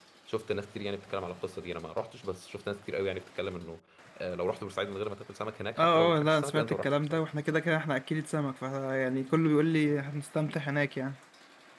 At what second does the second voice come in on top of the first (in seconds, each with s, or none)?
5.8 s